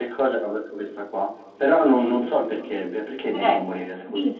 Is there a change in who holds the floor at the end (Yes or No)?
Yes